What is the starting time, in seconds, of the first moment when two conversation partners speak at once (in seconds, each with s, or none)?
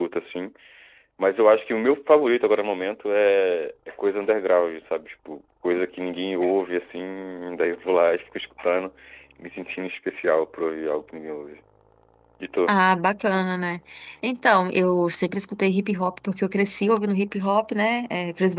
none